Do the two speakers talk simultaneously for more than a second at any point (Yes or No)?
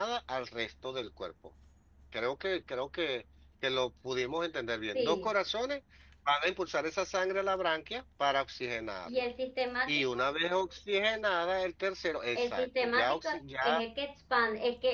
Yes